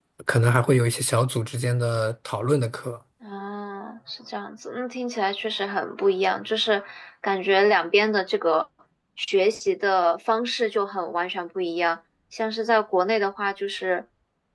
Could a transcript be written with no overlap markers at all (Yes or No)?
Yes